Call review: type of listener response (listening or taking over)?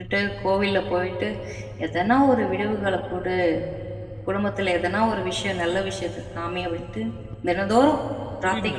taking over